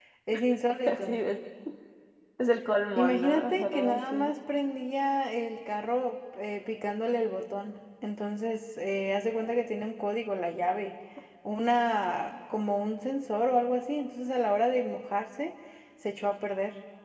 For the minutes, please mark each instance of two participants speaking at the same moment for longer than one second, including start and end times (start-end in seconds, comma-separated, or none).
3.0-4.3